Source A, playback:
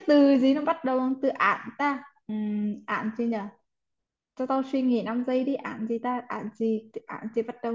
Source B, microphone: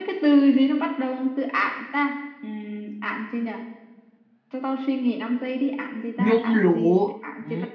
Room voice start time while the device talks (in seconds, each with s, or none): 6.2 s